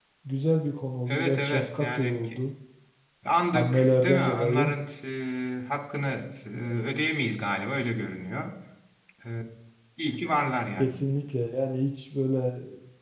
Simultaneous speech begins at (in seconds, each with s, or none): 1.1 s